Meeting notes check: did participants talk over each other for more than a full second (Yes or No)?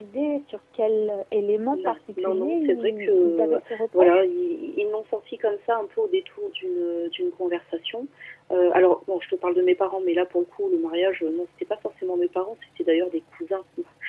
Yes